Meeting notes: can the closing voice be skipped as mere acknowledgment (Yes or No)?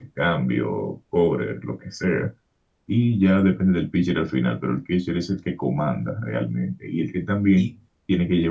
Yes